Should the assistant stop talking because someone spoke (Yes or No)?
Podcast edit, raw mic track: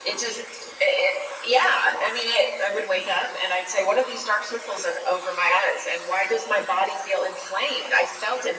No